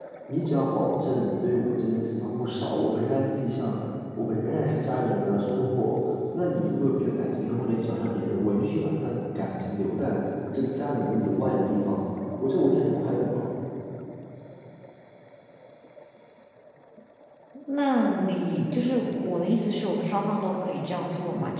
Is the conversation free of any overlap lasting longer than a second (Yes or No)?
Yes